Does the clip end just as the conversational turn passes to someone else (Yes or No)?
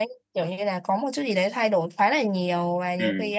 No